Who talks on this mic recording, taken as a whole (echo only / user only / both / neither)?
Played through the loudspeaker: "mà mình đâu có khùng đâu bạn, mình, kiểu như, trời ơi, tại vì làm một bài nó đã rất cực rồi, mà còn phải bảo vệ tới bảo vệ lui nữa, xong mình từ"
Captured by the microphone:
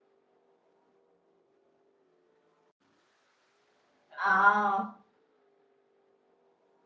user only